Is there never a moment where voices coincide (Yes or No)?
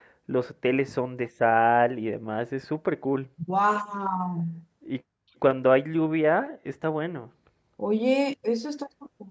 Yes